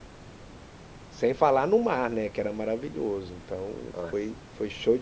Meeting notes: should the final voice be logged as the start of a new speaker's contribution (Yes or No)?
No